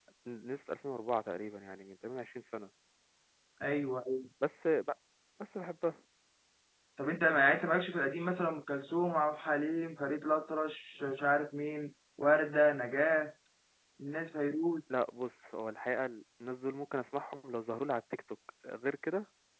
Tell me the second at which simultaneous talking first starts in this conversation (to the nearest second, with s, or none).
none